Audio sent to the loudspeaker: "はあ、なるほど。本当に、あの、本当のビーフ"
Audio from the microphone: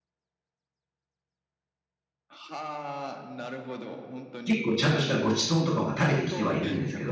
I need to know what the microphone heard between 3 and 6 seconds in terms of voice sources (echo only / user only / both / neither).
both